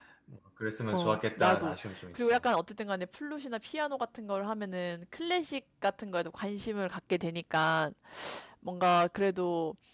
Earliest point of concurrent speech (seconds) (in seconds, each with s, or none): 0.9 s